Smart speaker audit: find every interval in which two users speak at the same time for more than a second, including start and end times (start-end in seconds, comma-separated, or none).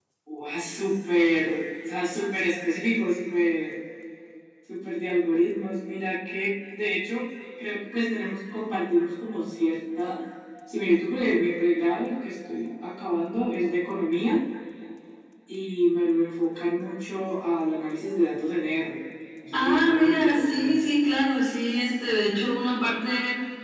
19.5-20.8